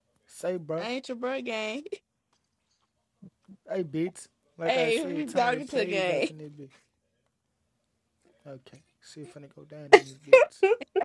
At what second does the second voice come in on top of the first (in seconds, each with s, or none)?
4.7 s